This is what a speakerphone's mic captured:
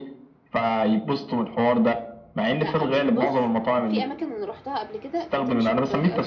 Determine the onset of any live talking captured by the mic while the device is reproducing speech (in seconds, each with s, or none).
2.6 s